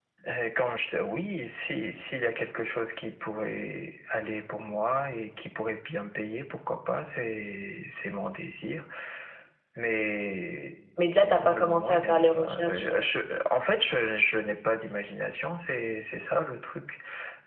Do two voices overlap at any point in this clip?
Yes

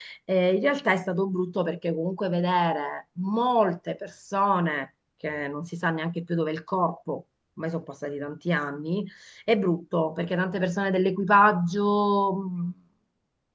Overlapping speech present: No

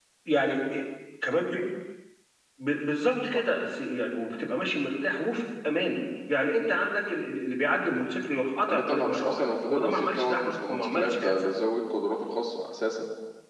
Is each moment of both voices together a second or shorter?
No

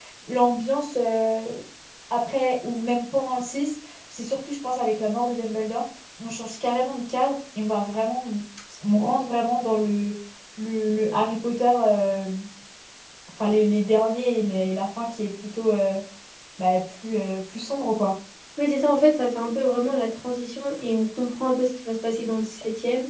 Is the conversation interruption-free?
Yes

